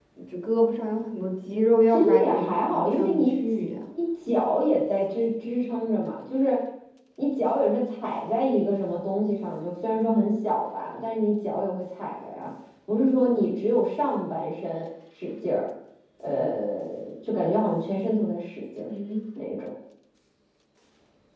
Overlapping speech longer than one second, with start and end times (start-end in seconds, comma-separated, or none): 1.9-3.3